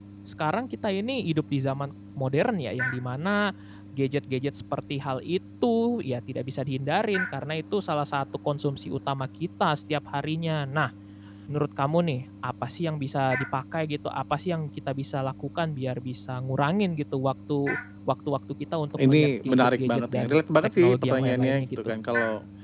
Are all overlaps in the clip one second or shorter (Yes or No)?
No